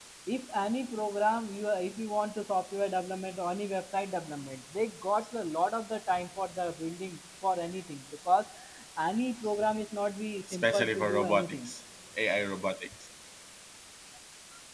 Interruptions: present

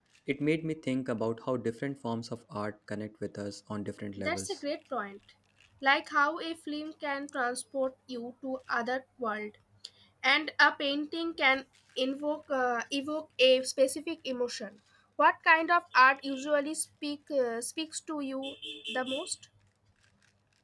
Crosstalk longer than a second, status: none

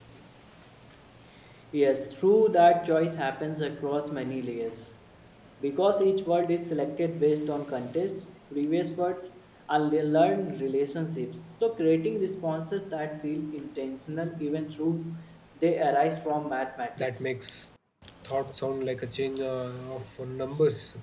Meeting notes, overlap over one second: none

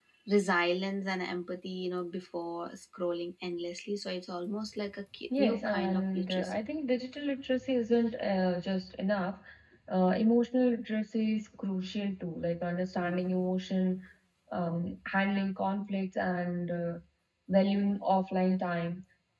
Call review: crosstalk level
present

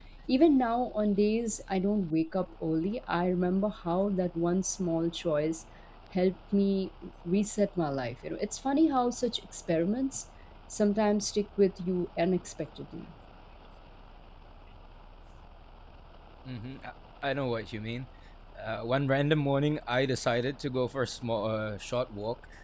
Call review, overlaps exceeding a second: none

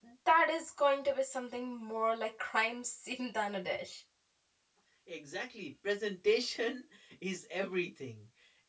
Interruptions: none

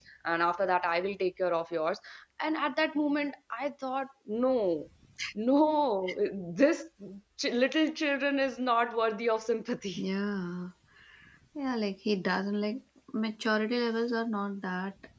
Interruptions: none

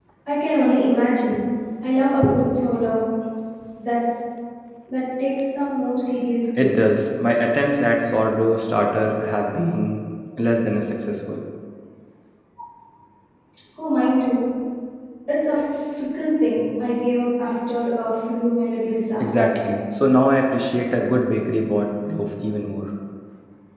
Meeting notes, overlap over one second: none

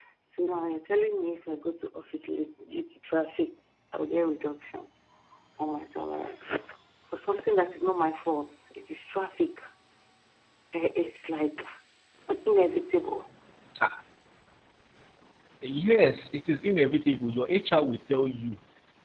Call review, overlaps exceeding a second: none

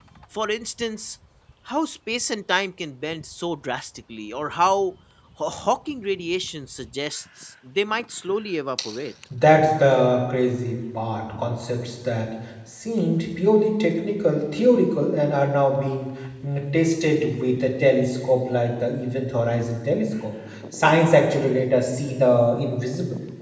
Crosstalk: none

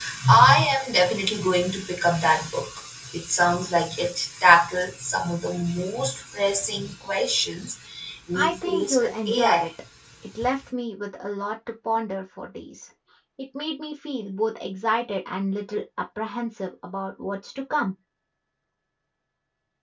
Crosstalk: present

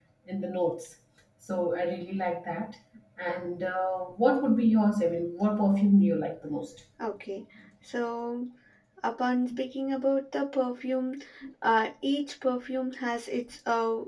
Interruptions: none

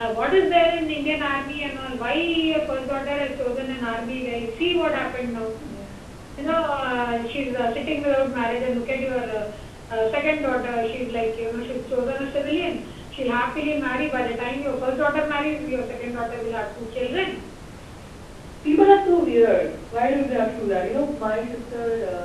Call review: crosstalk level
none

